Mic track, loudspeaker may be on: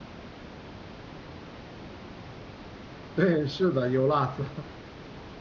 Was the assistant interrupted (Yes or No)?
Yes